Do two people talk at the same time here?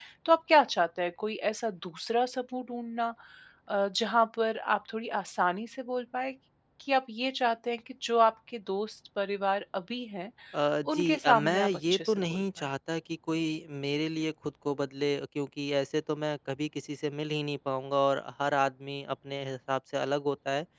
Yes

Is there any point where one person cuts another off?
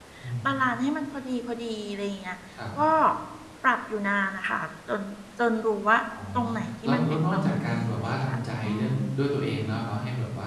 Yes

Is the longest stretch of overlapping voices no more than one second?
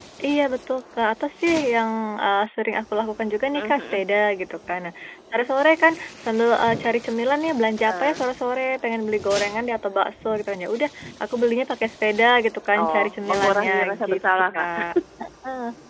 No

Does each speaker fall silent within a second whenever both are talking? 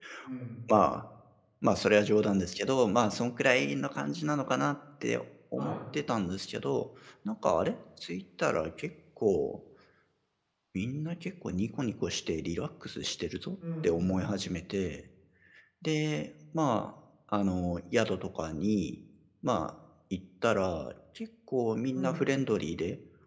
Yes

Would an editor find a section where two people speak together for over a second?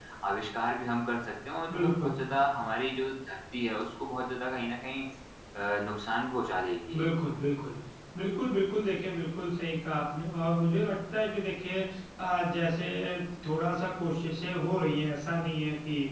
No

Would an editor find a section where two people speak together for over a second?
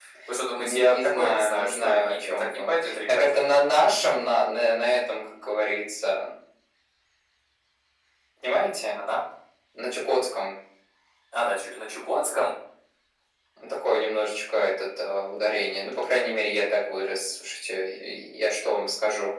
Yes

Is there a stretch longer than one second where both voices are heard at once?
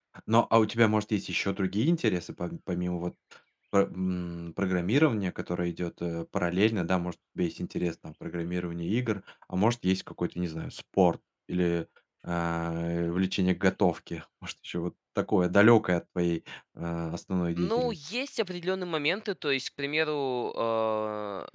No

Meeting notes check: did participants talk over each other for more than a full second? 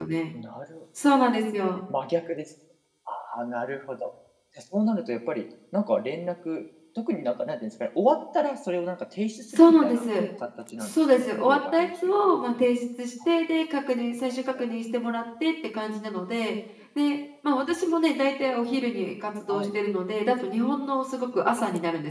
Yes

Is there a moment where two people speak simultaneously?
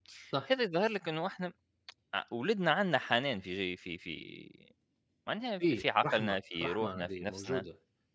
Yes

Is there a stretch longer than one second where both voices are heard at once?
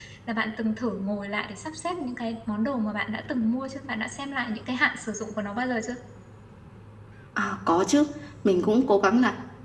No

